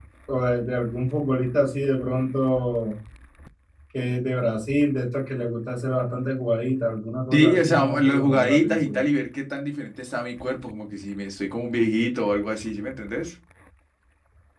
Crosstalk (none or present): present